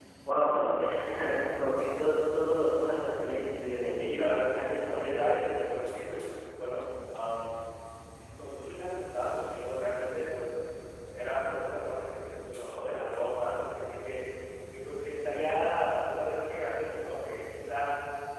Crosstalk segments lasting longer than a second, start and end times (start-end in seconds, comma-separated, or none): 4.6-5.8